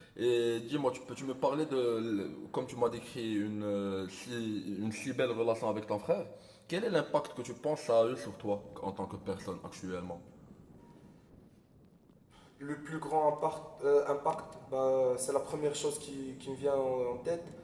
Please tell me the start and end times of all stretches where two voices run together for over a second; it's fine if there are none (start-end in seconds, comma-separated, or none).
none